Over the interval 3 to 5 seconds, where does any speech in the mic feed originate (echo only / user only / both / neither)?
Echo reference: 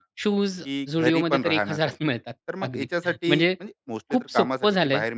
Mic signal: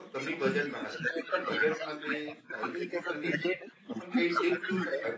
both